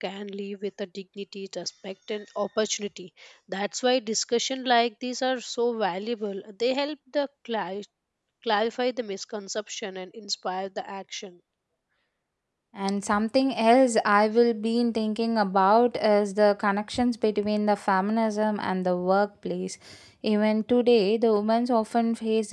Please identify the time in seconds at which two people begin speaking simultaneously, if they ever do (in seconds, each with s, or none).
none